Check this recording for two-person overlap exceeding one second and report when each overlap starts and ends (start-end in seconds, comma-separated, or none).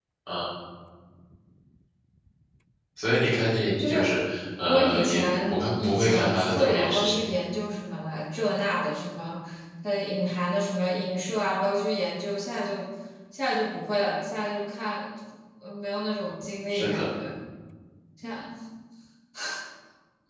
4.7-7.2